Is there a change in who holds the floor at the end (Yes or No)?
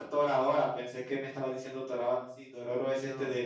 No